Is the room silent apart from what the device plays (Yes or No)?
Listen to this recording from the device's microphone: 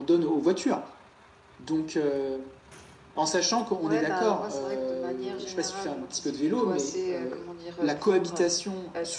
No